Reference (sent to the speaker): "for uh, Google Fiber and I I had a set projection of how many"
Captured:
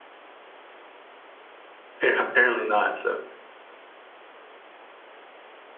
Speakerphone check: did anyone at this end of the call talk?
Yes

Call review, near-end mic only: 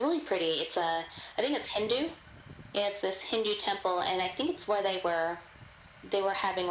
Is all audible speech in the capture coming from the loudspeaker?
Yes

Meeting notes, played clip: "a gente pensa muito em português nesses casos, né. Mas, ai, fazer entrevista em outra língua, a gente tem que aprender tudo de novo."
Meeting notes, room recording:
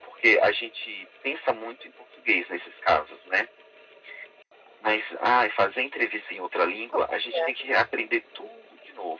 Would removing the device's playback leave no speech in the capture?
No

